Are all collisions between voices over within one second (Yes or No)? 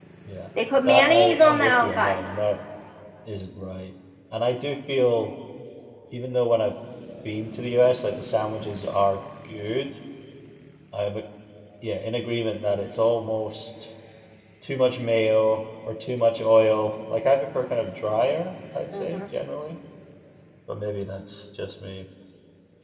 No